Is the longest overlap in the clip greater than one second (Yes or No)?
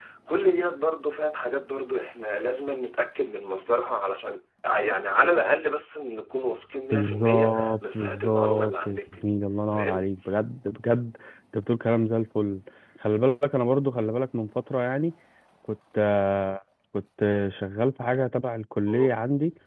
Yes